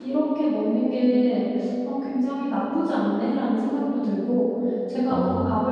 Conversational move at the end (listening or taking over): listening